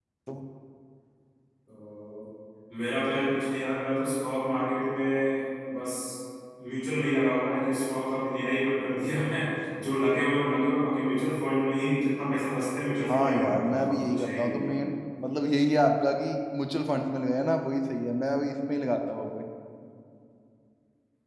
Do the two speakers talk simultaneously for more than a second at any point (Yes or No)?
Yes